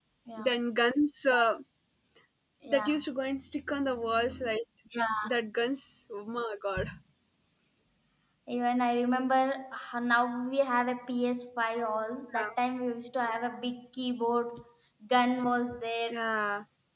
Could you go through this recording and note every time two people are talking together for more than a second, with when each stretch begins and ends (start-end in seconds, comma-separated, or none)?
none